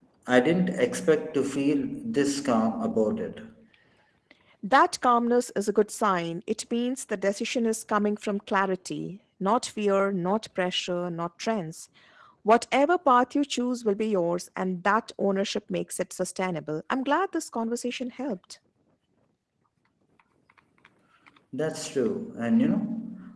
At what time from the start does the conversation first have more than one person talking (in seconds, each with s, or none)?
none